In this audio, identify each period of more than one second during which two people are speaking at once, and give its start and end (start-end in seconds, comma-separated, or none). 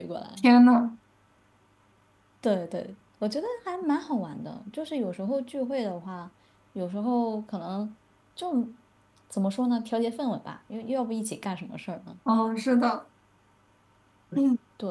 none